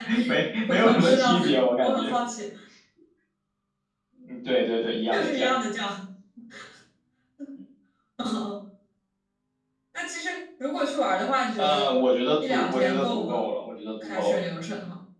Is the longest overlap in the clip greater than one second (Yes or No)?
Yes